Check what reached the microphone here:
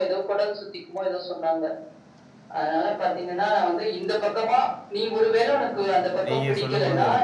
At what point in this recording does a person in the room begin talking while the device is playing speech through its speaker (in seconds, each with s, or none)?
6.3 s